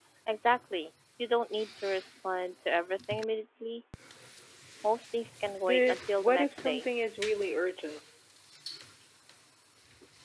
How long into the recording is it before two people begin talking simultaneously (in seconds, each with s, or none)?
5.6 s